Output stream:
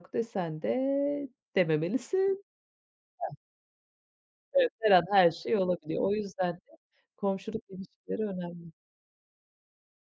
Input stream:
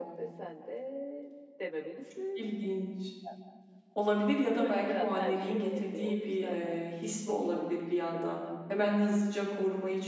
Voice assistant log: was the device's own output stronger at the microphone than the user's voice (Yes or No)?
No